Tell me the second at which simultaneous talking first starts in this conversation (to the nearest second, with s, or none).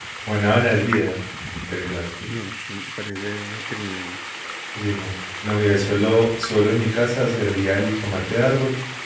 none